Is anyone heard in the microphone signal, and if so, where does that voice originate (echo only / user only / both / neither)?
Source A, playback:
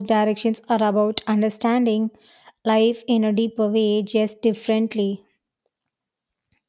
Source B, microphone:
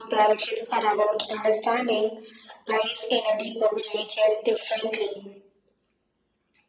echo only